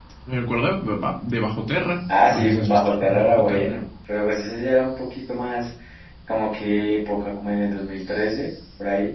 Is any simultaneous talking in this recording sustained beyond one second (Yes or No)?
Yes